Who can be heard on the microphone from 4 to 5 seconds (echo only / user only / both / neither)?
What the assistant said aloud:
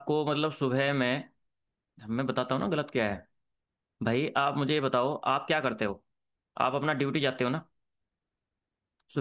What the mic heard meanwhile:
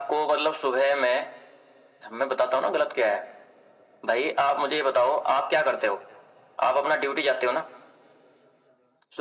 echo only